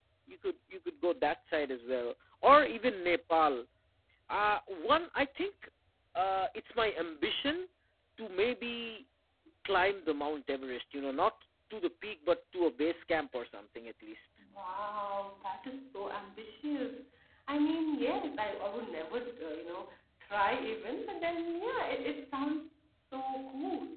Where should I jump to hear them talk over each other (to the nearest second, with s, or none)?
none